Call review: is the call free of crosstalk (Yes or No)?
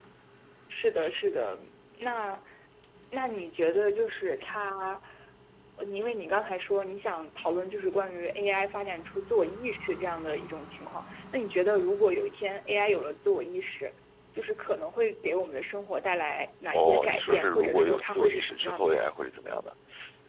No